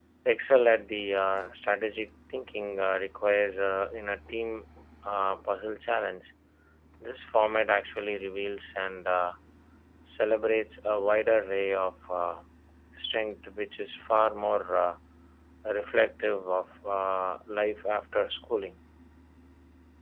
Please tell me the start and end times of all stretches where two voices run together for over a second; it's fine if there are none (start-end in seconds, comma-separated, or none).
none